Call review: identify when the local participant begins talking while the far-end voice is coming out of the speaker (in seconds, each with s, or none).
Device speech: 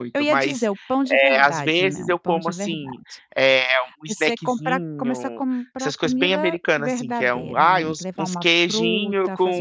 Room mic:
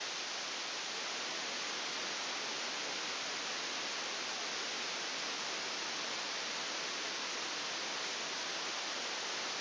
none